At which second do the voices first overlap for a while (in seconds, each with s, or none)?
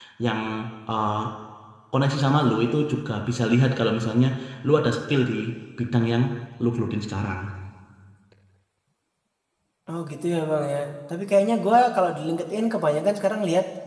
none